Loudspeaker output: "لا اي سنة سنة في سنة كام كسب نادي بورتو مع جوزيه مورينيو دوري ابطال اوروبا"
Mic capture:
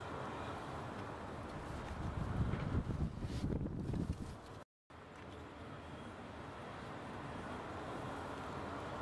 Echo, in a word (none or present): none